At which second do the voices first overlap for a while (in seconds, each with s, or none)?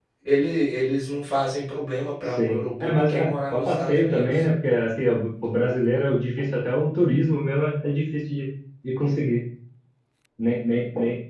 2.3 s